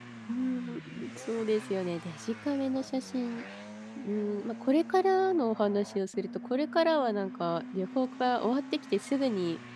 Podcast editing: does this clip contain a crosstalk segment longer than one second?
No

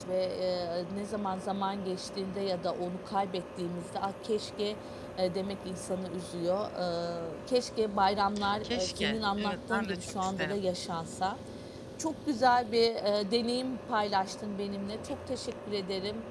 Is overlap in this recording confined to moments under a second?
No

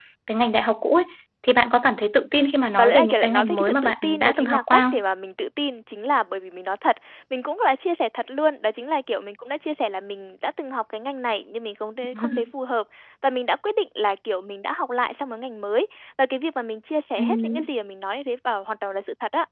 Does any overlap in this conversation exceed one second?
Yes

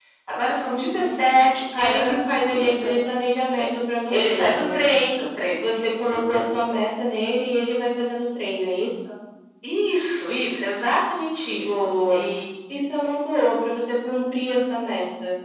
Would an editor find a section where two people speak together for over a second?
Yes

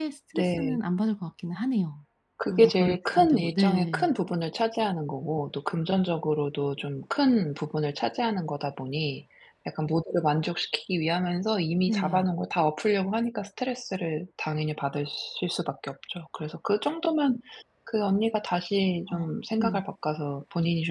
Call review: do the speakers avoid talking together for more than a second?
No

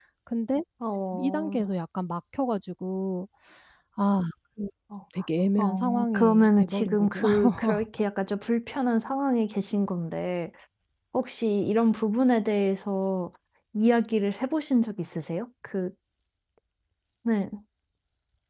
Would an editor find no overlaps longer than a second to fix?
No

